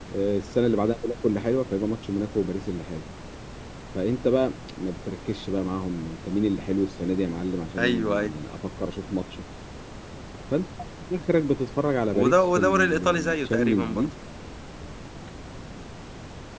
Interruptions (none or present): present